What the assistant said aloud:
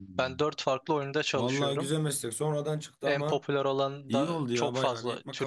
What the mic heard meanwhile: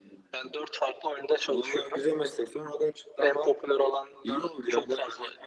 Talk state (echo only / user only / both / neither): echo only